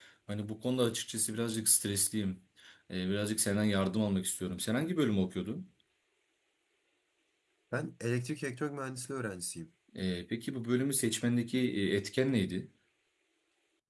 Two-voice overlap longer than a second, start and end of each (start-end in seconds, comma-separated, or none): none